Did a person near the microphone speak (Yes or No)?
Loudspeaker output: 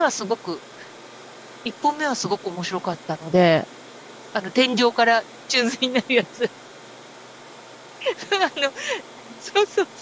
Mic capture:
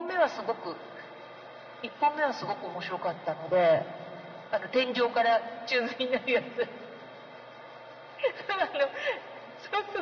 No